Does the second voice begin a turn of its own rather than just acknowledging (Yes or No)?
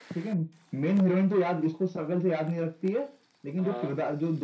No